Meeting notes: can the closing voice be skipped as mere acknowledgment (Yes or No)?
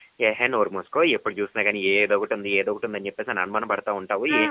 No